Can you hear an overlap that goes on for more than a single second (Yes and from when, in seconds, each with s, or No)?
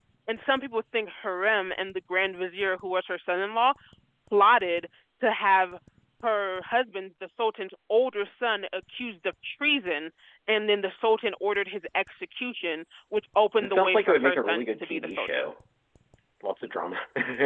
Yes, from 13.6 s